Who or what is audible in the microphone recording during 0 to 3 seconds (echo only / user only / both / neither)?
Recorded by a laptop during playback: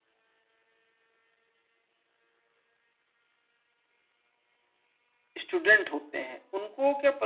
neither